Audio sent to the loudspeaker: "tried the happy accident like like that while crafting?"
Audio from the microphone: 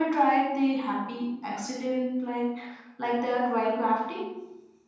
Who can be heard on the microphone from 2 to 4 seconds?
echo only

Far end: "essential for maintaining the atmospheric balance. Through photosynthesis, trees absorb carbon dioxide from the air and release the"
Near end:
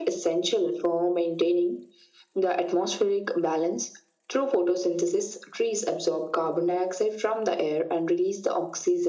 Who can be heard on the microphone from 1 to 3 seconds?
echo only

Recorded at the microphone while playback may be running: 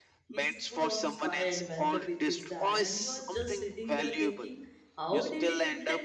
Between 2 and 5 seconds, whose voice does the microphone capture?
both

